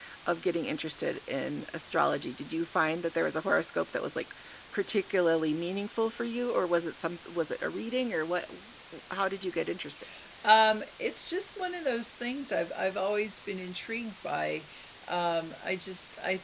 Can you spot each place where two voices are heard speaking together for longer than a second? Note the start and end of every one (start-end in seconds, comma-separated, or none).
none